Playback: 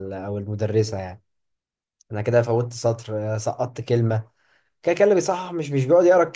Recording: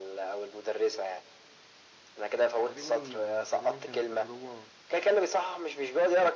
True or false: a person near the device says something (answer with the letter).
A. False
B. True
B